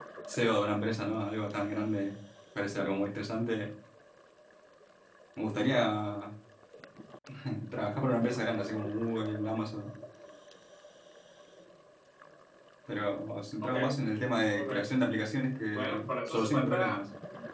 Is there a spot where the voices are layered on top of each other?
Yes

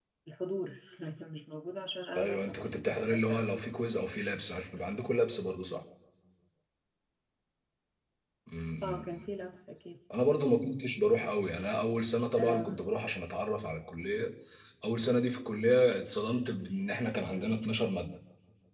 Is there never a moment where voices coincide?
No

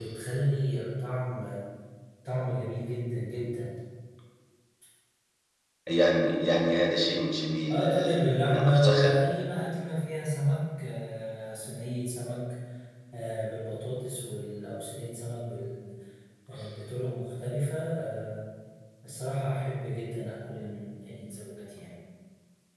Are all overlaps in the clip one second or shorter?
No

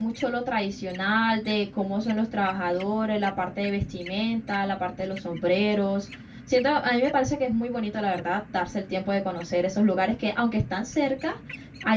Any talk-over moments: No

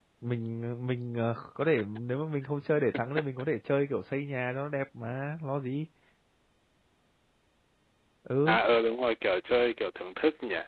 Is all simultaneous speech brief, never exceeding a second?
Yes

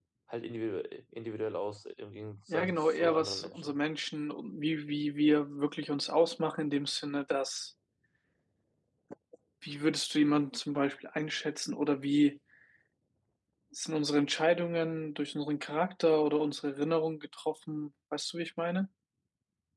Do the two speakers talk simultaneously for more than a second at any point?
Yes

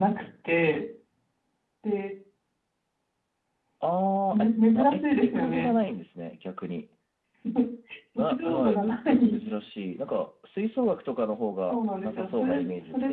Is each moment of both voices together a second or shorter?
No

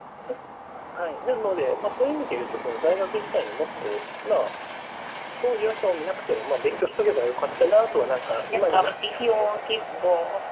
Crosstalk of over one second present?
Yes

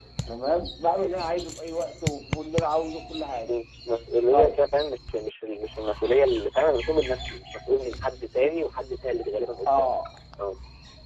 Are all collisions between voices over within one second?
Yes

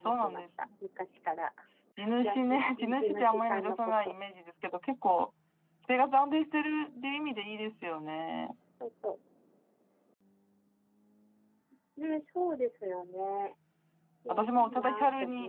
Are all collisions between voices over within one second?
No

